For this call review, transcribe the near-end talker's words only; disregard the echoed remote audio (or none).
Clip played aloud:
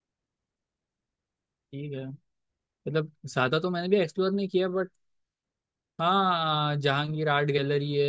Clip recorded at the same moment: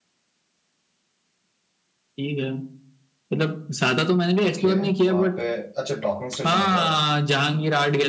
ओके वहाँ पे अच्छा डॉकिंग स्टेशन है क्या वो